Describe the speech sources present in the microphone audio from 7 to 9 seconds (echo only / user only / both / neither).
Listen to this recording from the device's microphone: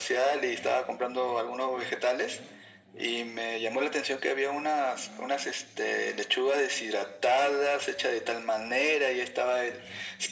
echo only